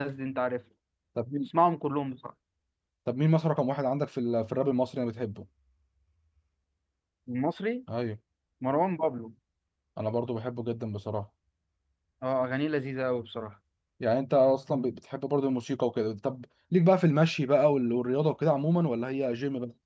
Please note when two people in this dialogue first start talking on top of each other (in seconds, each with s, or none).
none